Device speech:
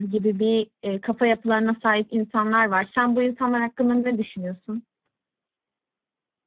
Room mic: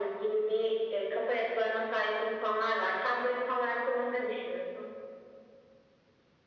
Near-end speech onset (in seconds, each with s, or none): none